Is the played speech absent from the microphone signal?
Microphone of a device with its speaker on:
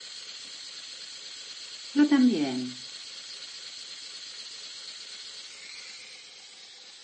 Yes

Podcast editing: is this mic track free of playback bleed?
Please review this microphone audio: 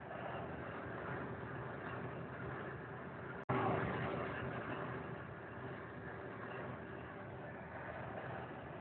Yes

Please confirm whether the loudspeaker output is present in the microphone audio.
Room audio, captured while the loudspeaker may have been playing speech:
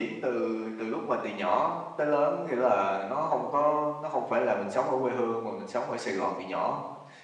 Yes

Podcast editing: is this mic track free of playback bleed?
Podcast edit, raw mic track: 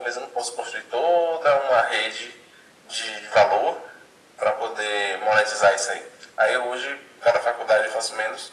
No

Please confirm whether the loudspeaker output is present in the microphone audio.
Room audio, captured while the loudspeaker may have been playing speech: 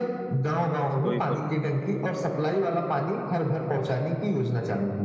Yes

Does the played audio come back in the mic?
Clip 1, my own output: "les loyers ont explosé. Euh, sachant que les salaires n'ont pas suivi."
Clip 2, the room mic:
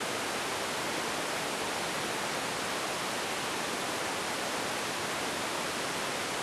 No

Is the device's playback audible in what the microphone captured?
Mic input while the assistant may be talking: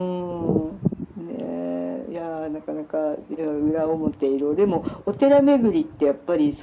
Yes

